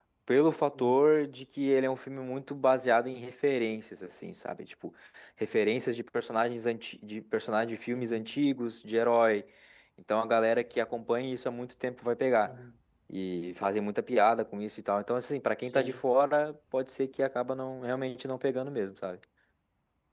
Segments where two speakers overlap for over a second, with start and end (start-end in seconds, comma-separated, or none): none